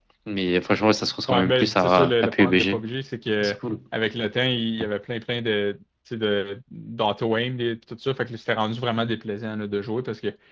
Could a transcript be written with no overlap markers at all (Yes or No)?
No